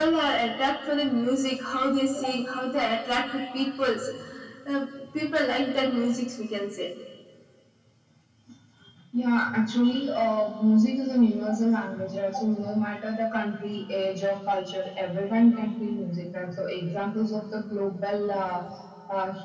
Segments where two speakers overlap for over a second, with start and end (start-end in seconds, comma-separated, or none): none